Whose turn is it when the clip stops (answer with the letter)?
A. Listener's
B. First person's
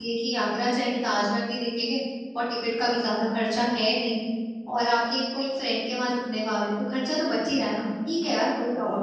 A